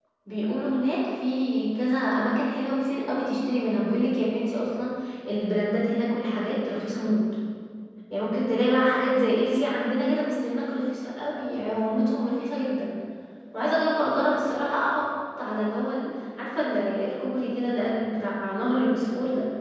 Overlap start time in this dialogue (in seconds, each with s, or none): none